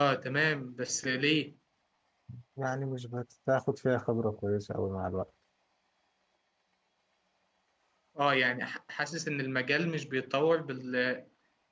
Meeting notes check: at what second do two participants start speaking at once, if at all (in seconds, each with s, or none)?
none